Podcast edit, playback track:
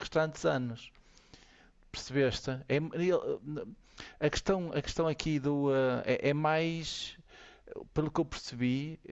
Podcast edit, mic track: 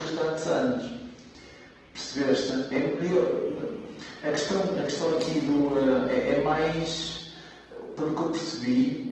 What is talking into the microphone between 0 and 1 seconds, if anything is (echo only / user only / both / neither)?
echo only